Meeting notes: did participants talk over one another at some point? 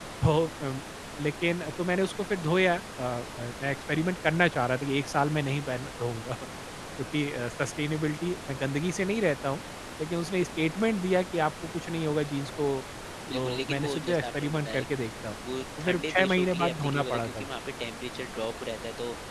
Yes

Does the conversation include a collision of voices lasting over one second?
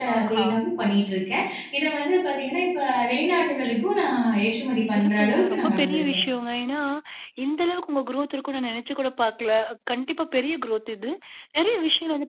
Yes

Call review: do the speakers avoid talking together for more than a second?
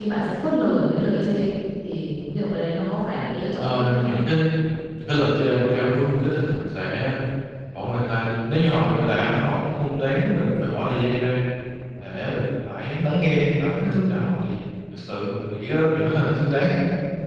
Yes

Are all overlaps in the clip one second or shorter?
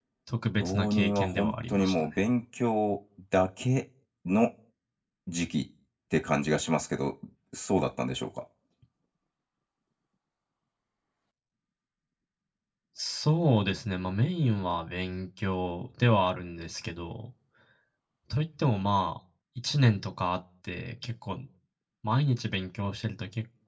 No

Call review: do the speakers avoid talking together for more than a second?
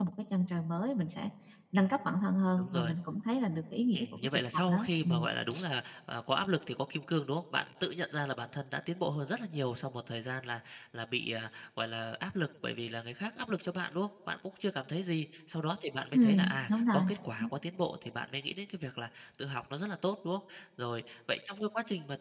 No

